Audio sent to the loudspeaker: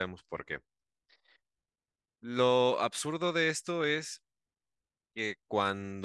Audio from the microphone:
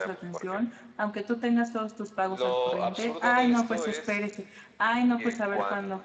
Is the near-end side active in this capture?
Yes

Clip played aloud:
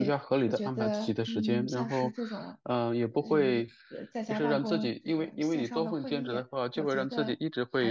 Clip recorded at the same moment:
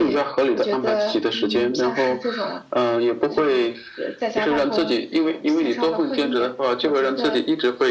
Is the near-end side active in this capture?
No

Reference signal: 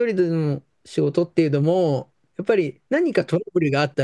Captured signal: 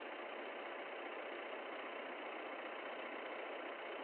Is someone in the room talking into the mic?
No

